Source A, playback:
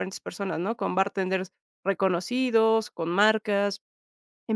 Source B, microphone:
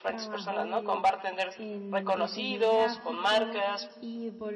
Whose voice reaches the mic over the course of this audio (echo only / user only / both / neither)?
both